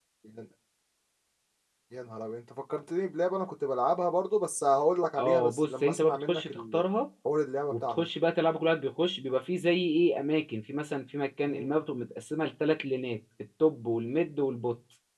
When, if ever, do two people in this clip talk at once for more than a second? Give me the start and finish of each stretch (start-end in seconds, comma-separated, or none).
5.2-6.8